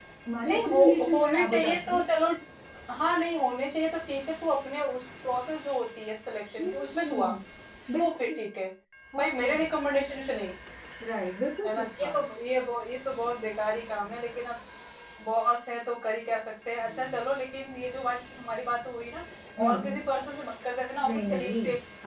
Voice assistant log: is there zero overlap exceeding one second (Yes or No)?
No